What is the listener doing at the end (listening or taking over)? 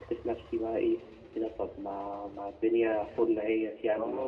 taking over